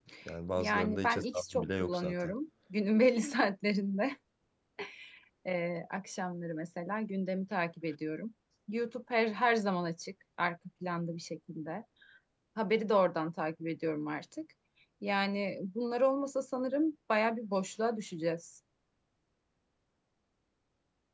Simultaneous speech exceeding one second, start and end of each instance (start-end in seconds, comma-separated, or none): 0.6-2.3